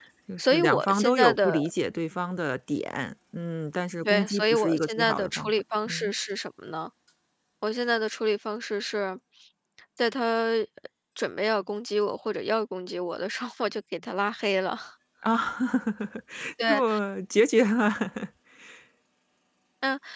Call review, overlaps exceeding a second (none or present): present